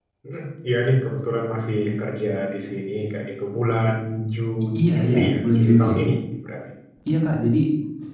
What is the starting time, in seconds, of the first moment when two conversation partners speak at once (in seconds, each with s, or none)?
4.8 s